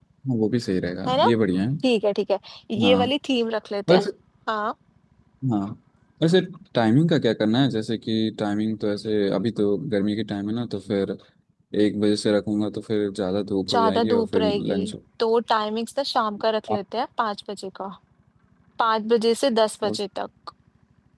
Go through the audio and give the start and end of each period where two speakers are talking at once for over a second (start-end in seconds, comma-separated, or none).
13.7-14.9